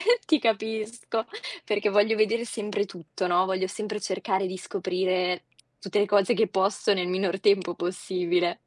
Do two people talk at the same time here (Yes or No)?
No